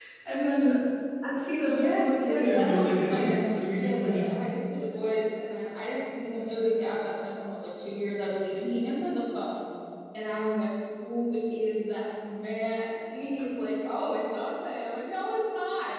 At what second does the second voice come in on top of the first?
1.7 s

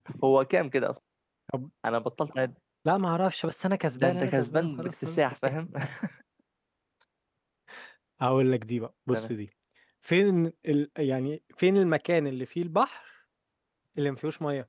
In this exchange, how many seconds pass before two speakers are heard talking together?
3.9 s

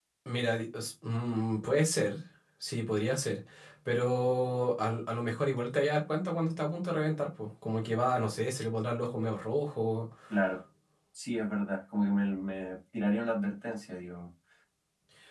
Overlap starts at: none

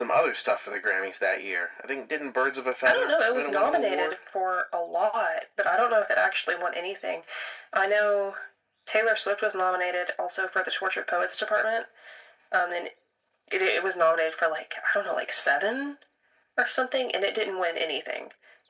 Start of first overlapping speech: 2.9 s

